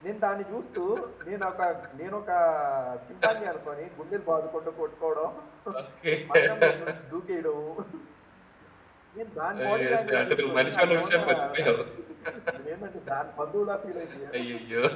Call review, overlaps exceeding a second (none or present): present